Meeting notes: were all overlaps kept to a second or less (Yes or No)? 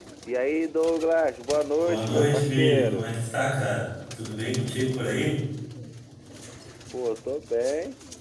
No